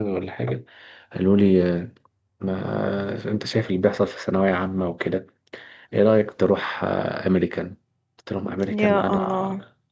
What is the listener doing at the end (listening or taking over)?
listening